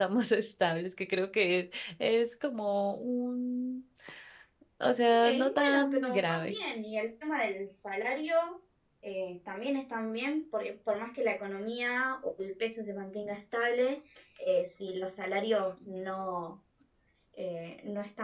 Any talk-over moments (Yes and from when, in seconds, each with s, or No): Yes, from 5.1 s